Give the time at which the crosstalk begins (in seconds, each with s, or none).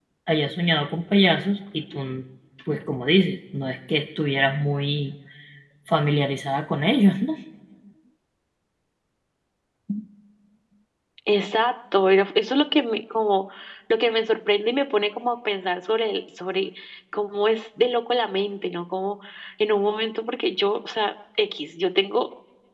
none